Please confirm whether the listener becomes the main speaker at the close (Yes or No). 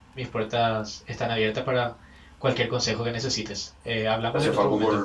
Yes